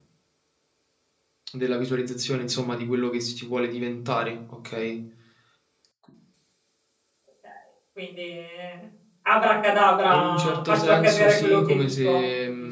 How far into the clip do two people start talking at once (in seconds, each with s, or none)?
10.1 s